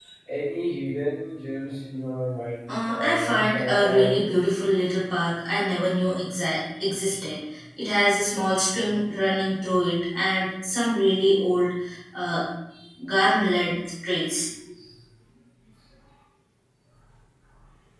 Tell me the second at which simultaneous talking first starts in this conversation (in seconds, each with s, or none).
2.7 s